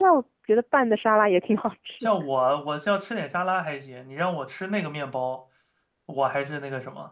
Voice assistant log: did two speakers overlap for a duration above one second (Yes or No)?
No